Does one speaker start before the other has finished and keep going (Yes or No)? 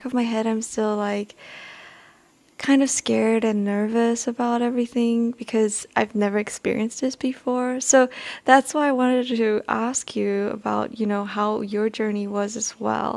No